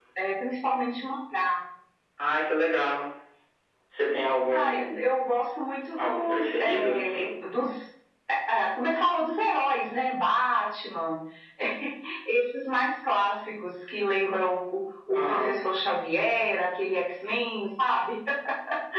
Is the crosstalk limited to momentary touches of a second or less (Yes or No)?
No